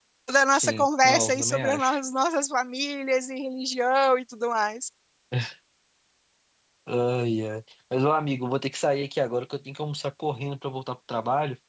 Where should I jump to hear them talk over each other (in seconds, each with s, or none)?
0.5 s